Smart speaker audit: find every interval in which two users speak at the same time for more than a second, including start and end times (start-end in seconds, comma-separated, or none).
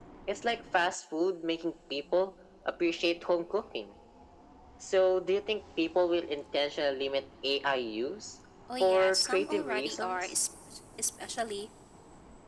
8.8-10.3